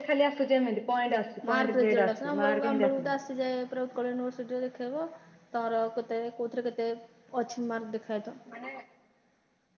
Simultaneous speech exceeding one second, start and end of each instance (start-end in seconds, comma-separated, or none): 1.5-3.1